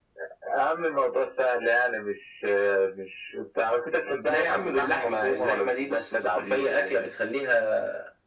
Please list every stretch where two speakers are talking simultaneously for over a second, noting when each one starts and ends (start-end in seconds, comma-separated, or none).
4.2-7.1